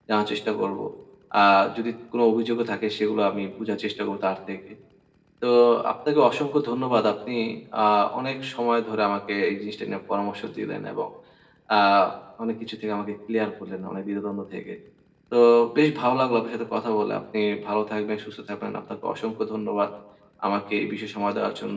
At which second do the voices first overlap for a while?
none

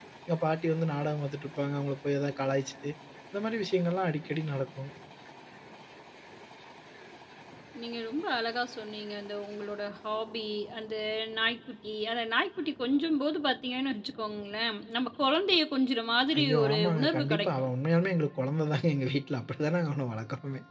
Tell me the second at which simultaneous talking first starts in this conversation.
16 s

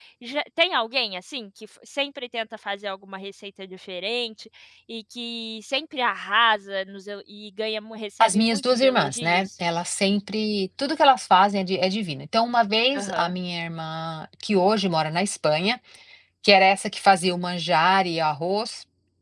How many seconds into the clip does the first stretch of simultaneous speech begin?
8 s

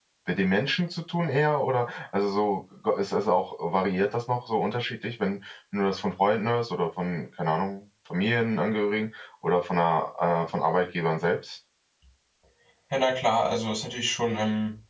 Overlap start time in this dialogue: none

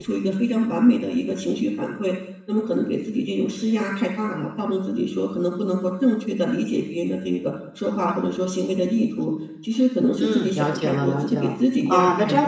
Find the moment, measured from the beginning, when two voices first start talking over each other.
10 s

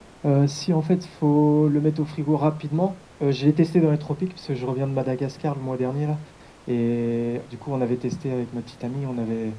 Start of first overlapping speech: none

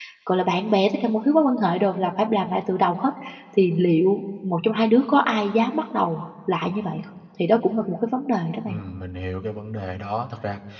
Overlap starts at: none

